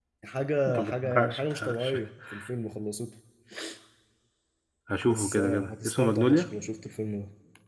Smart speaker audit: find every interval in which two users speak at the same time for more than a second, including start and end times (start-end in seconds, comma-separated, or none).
0.7-1.9, 5.1-6.5